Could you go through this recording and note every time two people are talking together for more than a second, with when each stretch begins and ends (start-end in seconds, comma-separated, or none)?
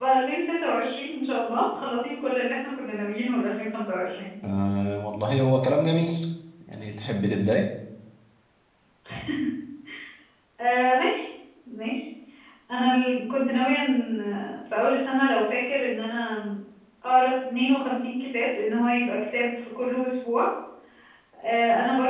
none